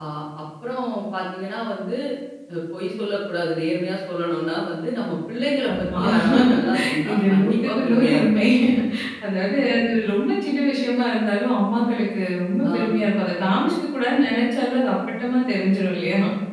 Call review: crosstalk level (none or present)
present